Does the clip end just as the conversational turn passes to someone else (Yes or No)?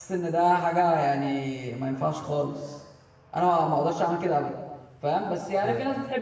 No